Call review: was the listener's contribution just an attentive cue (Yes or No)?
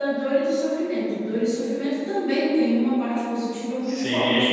No